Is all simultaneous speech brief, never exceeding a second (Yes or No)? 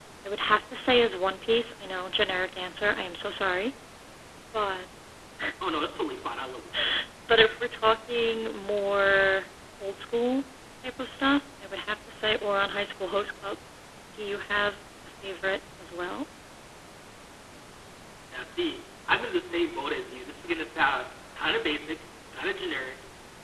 Yes